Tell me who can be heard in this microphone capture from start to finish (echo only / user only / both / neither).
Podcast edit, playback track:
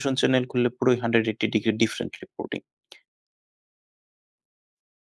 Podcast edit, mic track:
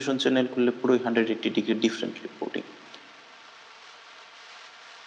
echo only